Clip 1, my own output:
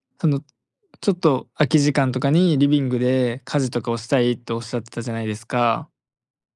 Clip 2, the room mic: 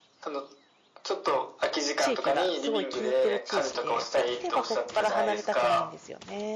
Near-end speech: present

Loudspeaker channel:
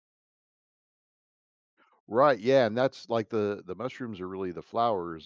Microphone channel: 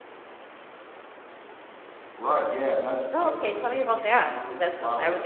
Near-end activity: present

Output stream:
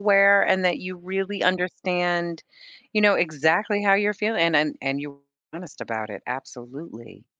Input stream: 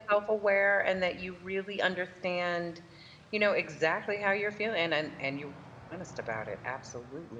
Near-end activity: none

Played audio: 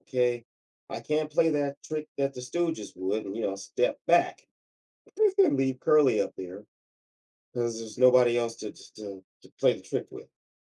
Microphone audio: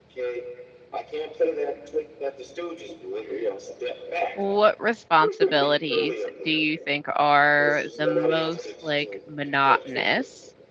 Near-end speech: present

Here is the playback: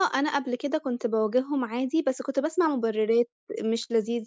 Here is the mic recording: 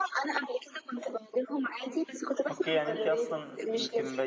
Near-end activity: present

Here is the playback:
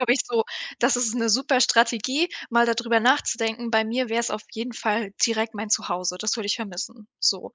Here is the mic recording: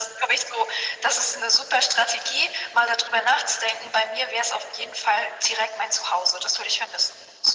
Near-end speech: none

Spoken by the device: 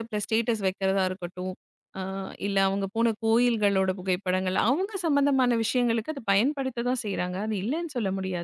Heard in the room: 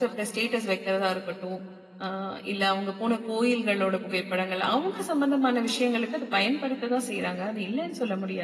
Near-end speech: none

